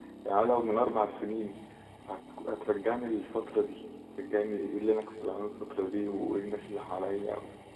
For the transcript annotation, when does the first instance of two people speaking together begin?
none

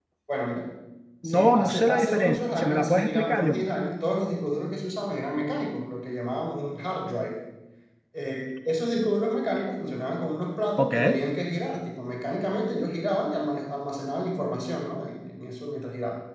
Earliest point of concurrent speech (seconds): 1 s

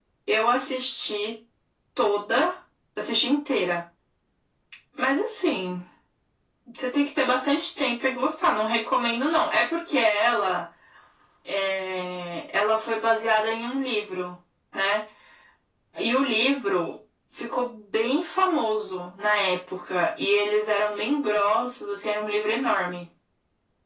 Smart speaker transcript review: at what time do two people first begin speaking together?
none

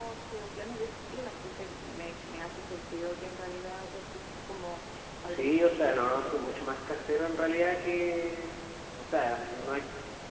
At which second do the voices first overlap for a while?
5 s

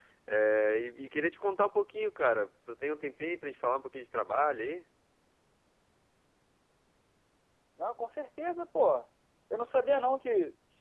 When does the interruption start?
none

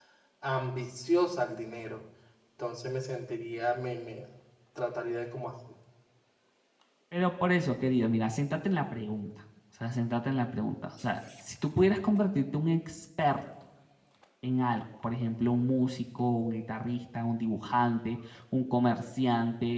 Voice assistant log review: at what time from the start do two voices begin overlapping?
none

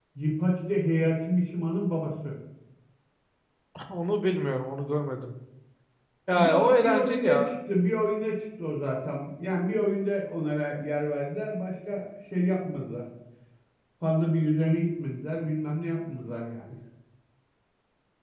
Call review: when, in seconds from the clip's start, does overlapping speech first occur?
6 s

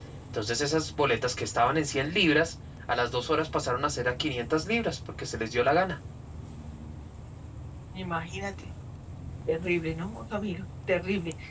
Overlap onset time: none

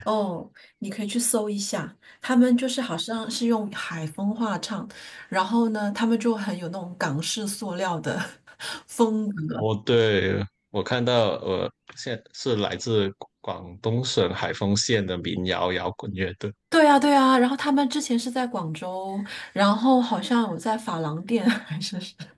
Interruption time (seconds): none

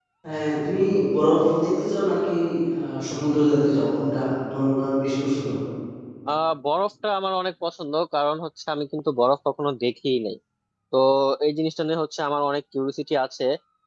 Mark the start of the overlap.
none

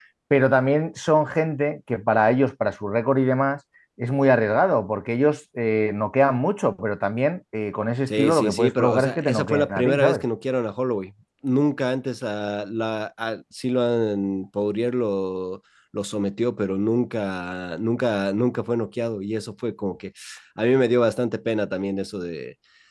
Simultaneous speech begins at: 8 s

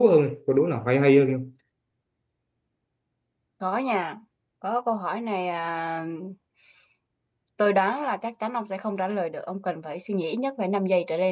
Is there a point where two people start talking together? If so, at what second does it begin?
none

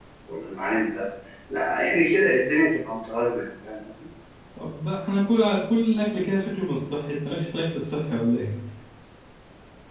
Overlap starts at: none

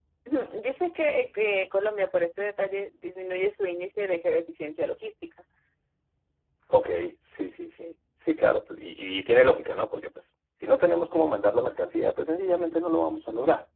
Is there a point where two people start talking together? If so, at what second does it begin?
none

